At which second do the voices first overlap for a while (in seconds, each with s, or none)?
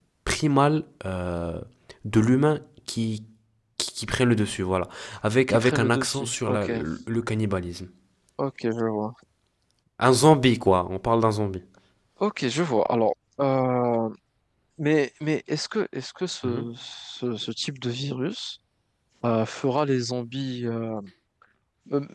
5.5 s